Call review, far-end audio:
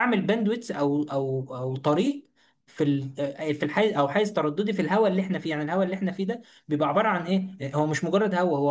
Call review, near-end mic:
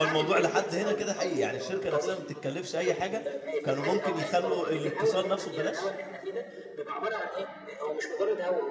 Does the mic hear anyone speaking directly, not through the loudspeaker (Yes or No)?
Yes